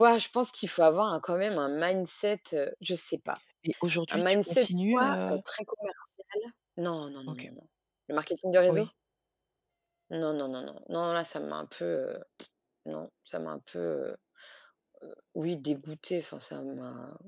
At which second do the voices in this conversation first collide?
4.1 s

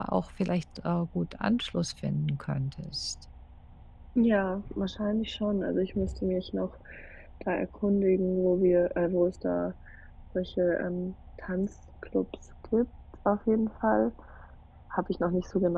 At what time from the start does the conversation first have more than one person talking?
none

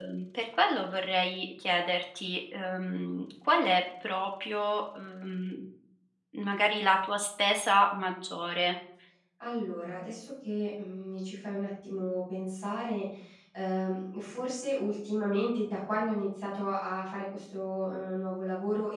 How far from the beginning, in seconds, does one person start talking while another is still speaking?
none

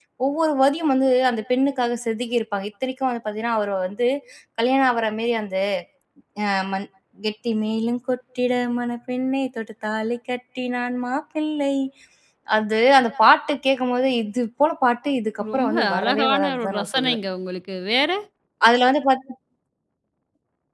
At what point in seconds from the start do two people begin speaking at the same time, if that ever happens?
15.4 s

